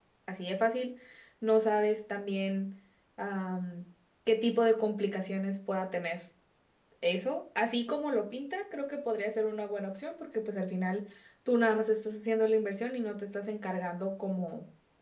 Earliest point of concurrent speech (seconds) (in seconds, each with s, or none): none